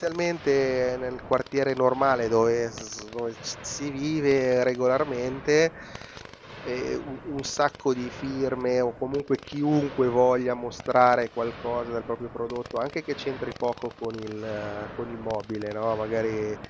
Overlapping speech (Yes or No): No